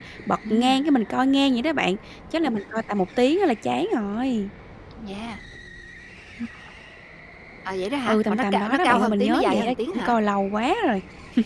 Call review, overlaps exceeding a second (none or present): present